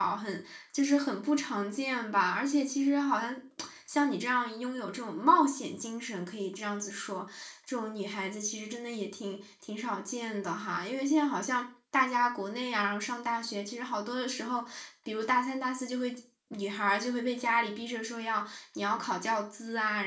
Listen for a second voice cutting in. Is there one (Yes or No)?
No